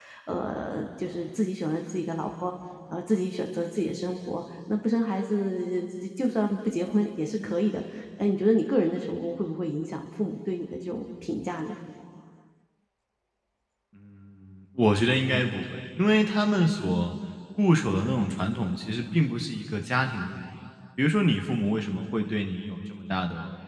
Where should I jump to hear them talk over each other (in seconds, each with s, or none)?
none